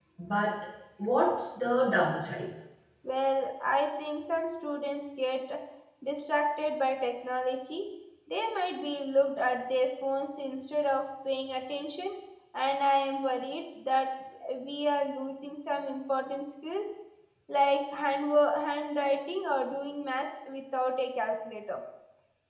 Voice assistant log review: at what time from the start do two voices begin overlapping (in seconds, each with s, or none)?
none